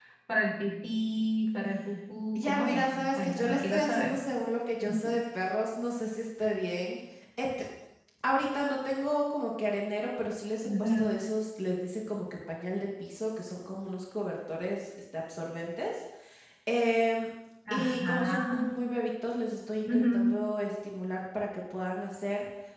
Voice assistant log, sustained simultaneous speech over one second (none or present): present